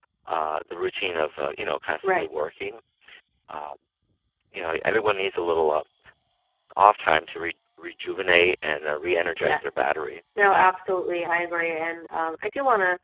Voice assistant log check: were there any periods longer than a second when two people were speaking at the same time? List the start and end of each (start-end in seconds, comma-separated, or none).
none